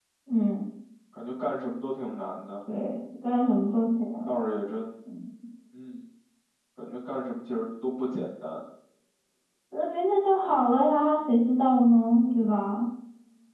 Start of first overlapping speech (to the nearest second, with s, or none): none